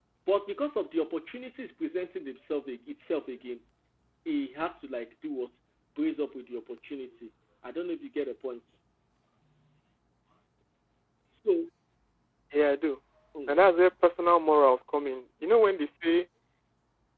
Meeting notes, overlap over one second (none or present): none